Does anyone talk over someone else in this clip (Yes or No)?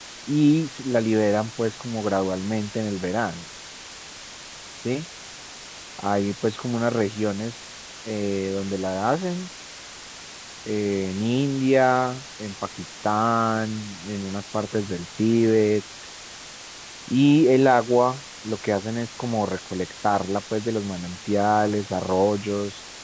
No